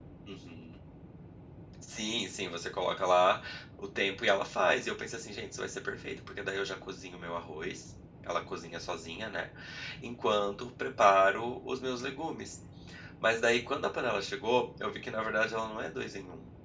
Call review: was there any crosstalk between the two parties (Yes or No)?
No